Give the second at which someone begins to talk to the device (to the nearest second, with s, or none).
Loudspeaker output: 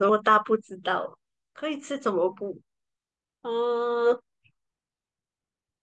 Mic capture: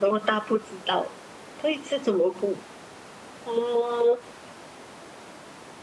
none